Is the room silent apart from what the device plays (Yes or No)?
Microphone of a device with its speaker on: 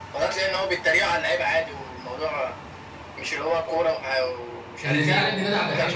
No